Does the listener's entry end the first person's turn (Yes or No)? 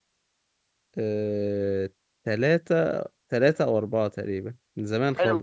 Yes